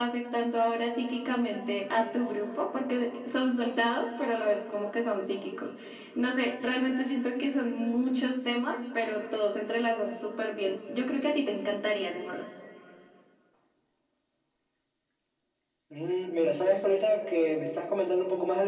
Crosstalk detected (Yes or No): No